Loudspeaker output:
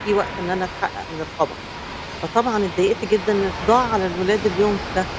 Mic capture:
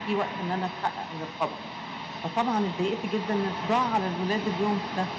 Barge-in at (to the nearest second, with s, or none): none